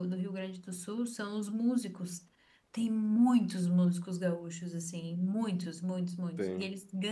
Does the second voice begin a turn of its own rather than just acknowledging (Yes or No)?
No